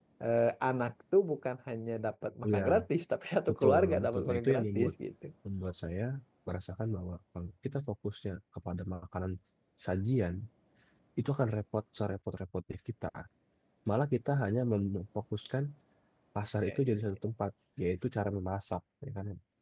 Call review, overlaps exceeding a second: present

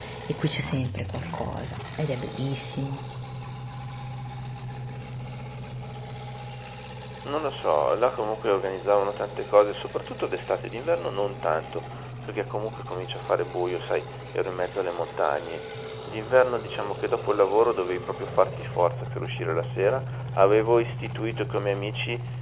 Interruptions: none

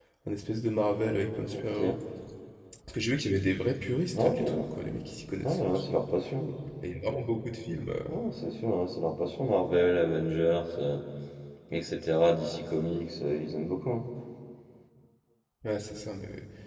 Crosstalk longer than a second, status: none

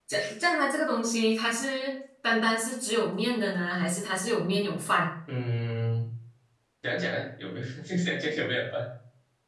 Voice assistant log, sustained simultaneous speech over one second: none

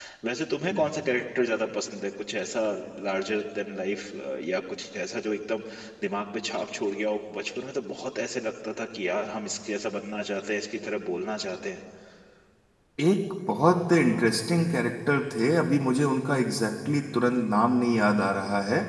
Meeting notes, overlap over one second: none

